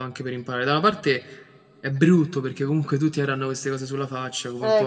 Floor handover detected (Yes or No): Yes